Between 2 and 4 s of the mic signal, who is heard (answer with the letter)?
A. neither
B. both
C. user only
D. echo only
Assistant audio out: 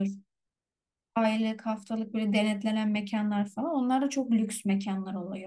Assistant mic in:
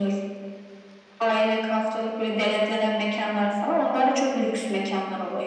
D